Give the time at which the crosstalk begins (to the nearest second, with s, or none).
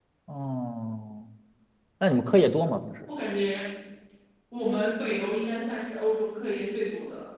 none